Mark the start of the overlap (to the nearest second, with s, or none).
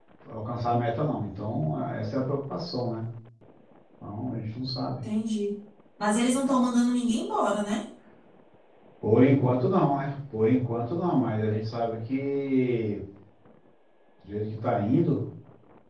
none